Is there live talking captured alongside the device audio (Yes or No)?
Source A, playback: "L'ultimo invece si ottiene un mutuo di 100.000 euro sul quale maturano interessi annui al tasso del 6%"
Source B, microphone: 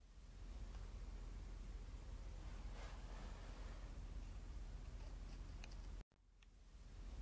No